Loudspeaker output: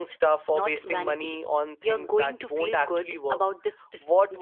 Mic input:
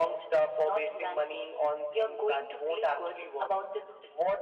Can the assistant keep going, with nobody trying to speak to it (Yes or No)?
Yes